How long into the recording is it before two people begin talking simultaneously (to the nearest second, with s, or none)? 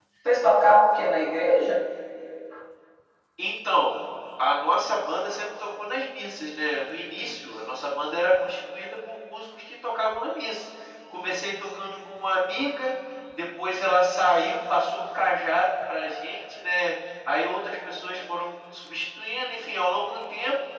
none